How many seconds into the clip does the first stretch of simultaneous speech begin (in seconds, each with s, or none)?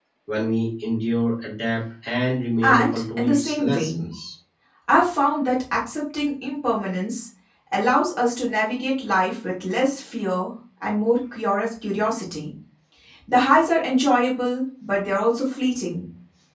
2.6 s